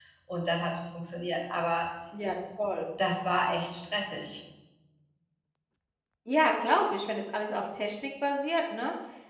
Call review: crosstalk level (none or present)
none